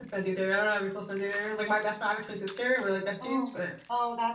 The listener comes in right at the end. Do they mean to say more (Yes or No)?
Yes